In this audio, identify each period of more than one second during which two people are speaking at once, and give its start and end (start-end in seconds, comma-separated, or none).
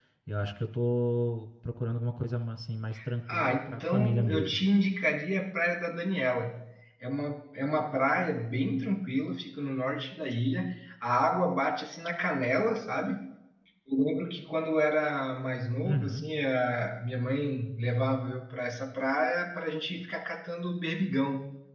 3.3-4.6